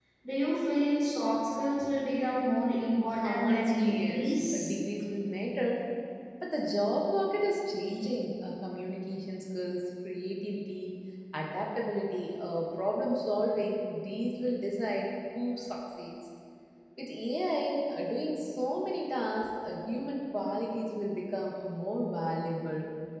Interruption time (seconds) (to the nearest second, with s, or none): 3 s